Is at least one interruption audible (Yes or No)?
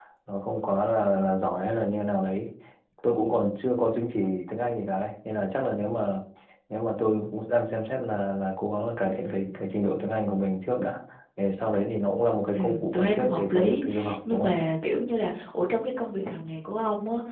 Yes